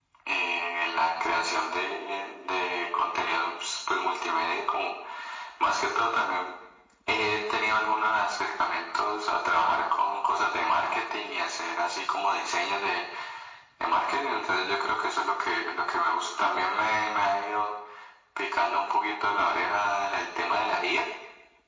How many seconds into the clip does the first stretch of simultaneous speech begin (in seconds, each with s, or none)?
none